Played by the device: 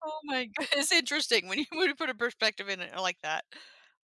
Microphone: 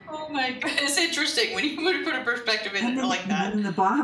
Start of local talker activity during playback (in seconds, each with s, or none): 2.8 s